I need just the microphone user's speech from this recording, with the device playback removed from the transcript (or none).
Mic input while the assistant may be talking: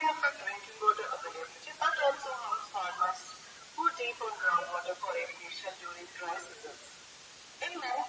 none